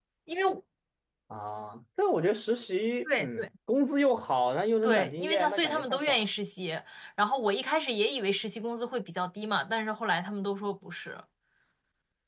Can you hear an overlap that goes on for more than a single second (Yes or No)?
Yes